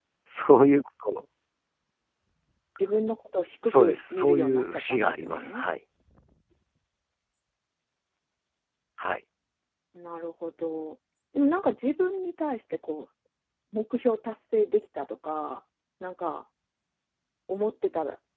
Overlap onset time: 4 s

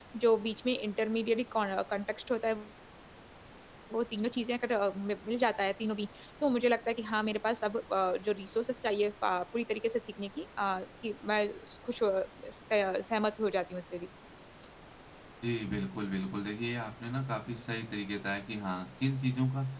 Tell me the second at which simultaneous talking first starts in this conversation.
none

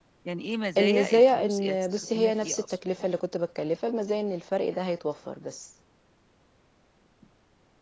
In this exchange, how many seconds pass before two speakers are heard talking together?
1 s

